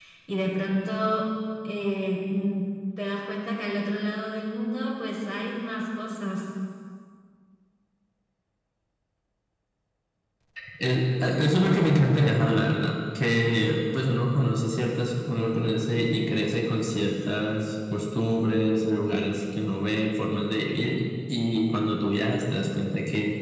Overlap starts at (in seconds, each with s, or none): none